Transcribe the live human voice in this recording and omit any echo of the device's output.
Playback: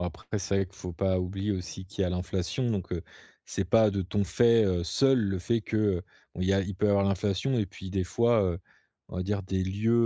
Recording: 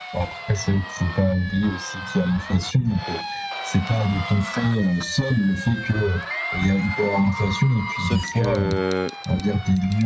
sauf que,

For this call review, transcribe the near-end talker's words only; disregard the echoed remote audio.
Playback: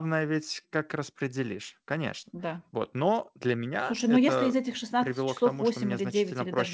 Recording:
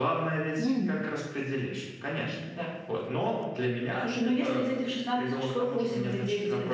М.

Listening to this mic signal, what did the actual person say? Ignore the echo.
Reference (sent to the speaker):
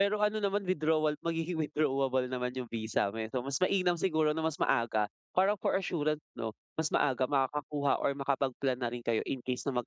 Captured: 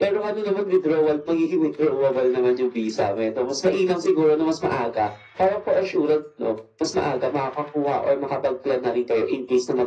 none

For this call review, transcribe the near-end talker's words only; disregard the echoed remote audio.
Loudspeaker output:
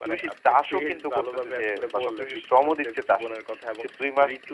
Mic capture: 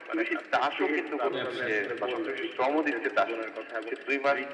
ব্যবসায়ী।

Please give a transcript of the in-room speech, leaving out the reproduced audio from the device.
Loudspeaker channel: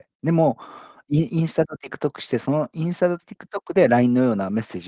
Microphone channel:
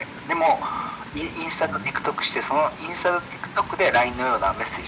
none

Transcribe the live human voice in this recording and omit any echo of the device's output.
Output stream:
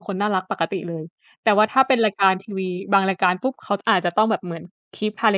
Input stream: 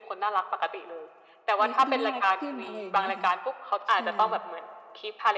เออ เขาดูน่ารักขึ้น อะไรอย่างเงี้ย ค่ะ ใช่

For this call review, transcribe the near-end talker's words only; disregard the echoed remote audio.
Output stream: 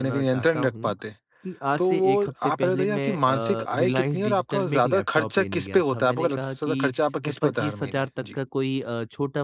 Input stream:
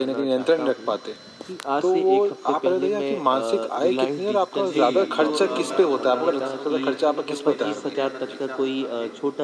जी, तो अ, मैं आपको बताना चाहता हूँ कहीं न कहीं जो मेरा सबसे ज़्यादा खर्चा होता है,

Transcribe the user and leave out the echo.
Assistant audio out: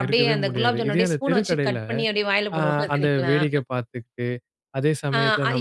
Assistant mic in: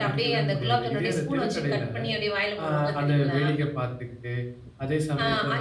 none

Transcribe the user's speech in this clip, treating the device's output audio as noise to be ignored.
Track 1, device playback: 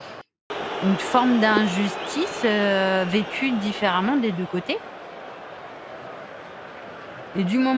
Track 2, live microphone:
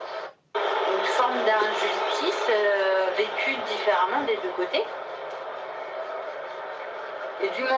none

